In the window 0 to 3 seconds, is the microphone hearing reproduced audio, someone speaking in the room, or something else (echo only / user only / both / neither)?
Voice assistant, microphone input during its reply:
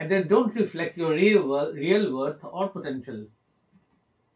user only